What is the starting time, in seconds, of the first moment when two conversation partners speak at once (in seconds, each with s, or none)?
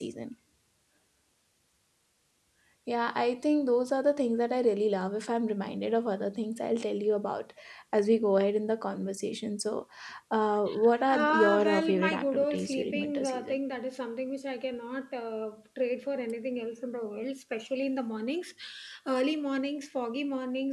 11.1 s